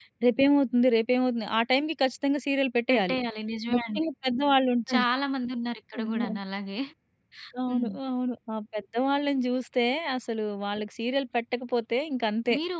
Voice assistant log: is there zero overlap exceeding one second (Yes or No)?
Yes